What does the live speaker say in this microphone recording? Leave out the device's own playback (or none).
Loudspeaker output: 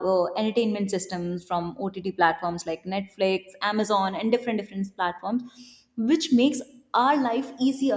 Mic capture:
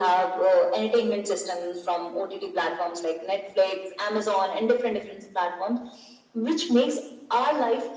none